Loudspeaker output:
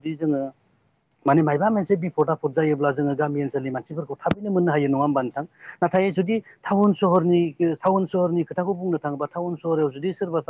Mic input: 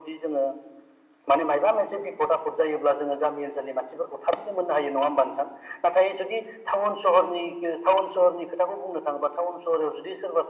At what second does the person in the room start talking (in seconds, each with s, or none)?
none